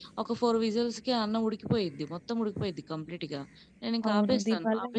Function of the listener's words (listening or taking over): taking over